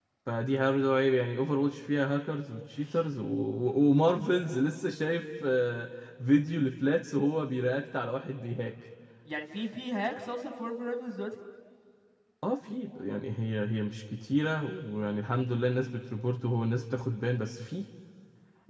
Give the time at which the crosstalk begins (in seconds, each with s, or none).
none